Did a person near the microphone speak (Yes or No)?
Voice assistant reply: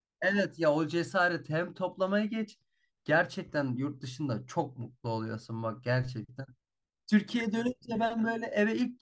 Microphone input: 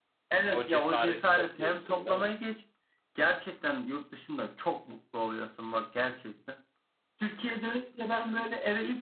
Yes